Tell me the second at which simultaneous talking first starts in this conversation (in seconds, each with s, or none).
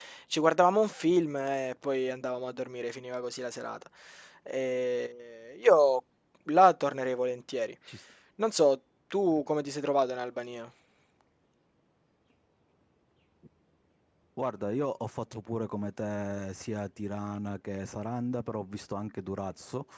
none